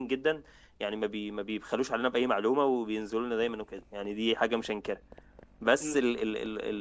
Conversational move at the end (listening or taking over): listening